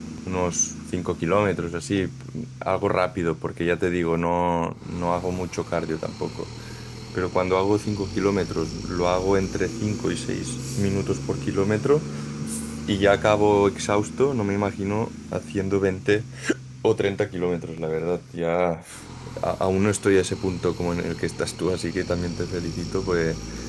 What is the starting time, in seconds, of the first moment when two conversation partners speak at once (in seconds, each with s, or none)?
none